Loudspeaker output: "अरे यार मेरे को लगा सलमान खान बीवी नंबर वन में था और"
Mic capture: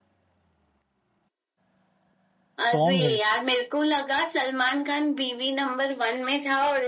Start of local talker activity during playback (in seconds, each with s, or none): 2.7 s